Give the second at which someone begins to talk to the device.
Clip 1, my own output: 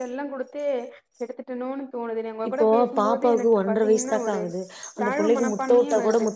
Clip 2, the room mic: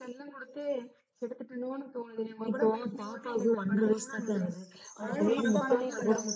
5.0 s

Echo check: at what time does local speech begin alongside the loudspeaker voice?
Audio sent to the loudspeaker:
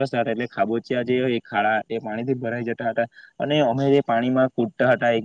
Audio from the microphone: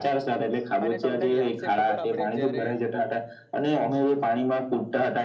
0.9 s

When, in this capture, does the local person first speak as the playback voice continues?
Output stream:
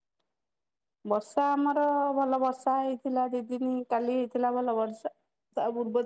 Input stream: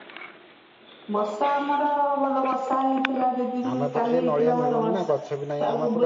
3.7 s

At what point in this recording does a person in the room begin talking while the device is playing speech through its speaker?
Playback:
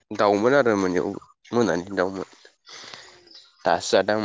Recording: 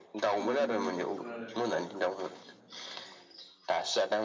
0.4 s

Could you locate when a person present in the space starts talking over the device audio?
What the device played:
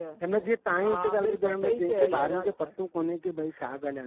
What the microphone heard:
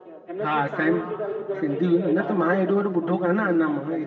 0.4 s

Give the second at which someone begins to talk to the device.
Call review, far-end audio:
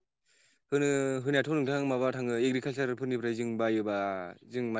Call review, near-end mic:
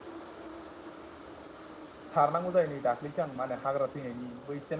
2.1 s

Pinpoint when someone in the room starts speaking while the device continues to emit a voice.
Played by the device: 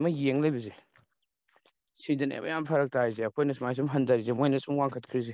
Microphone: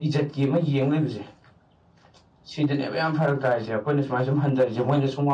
none

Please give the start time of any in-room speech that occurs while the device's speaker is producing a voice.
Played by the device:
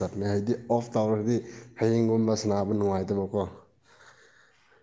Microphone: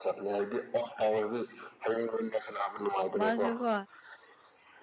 3.2 s

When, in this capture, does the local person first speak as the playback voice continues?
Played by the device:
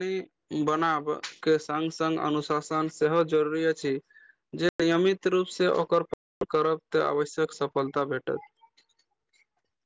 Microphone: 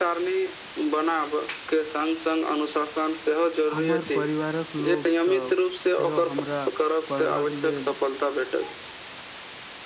3.7 s

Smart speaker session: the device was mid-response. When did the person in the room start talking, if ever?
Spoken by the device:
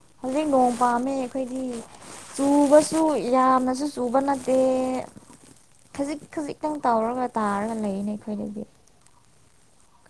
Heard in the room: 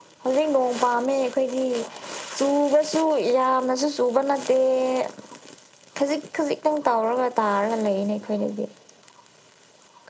none

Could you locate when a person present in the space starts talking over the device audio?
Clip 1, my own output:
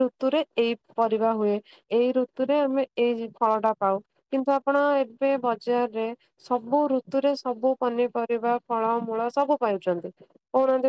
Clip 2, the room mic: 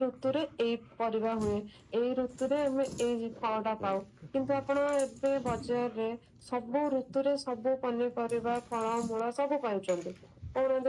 none

